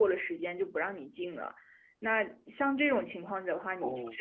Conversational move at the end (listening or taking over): listening